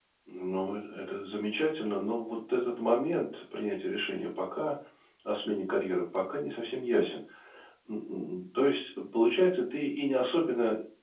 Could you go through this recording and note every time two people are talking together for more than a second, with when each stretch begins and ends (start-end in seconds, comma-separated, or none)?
none